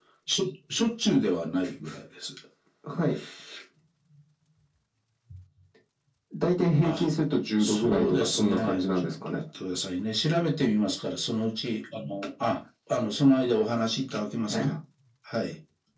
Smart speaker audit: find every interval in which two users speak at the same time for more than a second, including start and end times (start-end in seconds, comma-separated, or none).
7.6-9.4